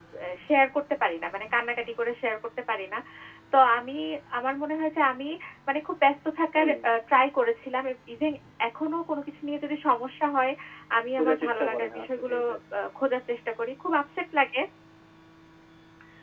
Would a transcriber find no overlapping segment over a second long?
No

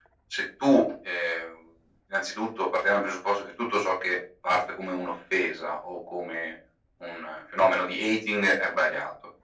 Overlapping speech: No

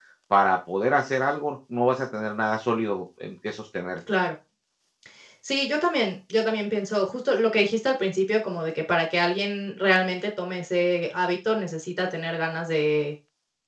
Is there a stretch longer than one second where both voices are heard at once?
No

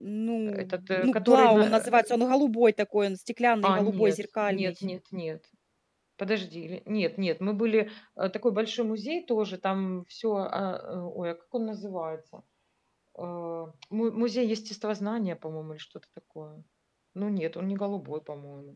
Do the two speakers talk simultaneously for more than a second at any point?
Yes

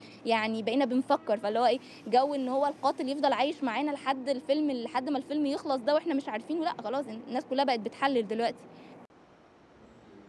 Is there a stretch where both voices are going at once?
No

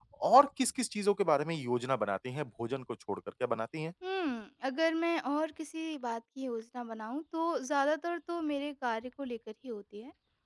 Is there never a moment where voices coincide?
Yes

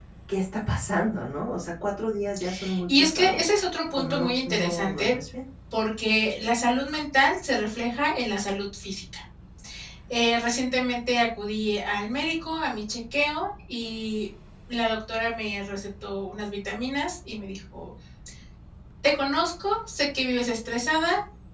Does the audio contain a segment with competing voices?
Yes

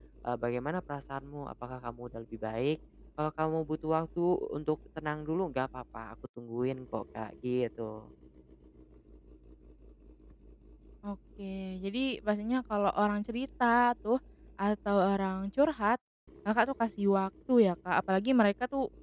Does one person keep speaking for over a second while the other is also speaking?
No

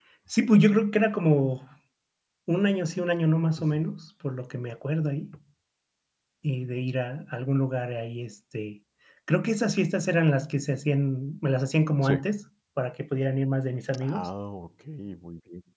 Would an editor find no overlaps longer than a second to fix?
Yes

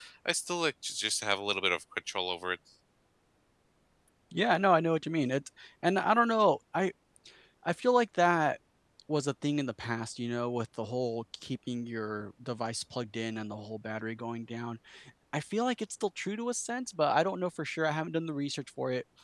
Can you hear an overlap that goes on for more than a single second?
No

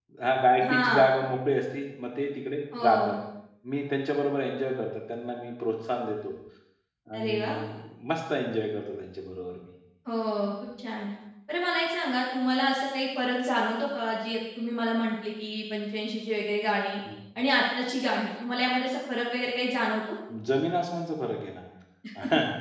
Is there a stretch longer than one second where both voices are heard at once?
No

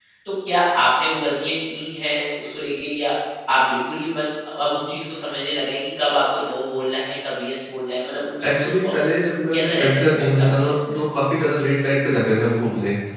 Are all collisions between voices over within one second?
No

